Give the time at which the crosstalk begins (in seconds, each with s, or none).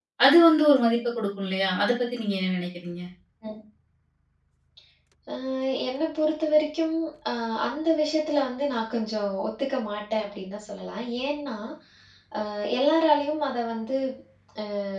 none